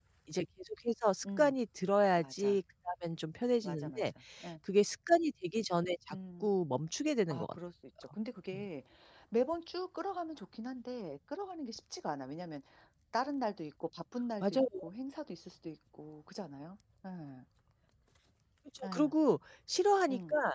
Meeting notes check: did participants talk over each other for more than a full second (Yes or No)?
No